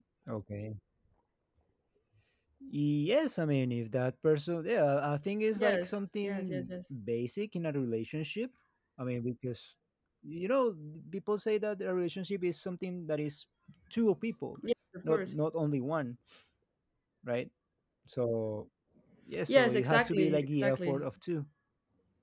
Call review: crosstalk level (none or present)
present